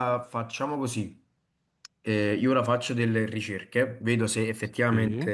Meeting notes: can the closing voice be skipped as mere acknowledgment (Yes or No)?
Yes